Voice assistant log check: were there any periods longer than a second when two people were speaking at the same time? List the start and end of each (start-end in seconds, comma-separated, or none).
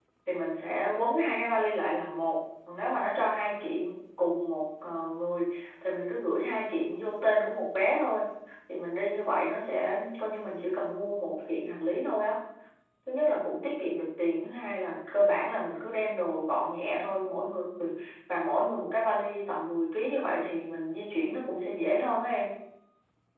none